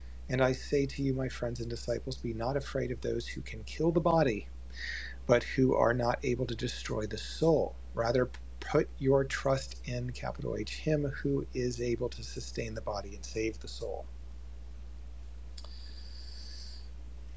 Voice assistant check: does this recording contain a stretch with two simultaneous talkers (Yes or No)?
No